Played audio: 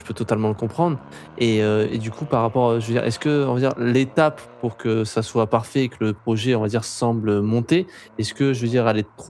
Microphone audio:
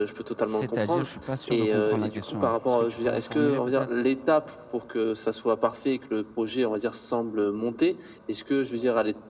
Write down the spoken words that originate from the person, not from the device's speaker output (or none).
C'est-à-dire? Je suis pas sûr de comprendre la question. Est-ce que tu peux reformuler peut-être?